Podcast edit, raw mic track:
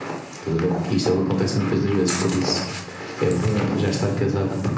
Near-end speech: none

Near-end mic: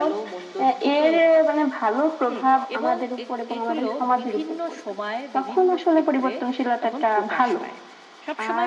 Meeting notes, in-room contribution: none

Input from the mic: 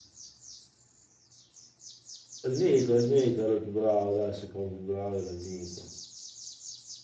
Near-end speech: present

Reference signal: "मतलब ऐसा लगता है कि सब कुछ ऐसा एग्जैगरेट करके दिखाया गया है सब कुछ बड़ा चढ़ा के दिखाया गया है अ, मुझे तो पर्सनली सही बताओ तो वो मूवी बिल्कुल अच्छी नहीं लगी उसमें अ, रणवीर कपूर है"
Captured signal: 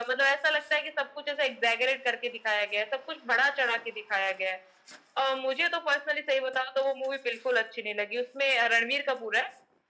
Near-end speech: none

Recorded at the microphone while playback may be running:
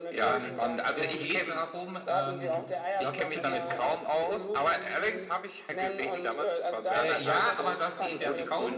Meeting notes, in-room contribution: present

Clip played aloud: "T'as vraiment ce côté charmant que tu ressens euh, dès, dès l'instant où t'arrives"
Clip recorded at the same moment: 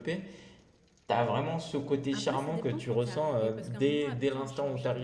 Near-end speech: present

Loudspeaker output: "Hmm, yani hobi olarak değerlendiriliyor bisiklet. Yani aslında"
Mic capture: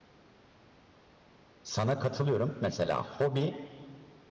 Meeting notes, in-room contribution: present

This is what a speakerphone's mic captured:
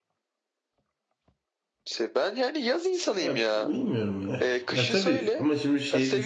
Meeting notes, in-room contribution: present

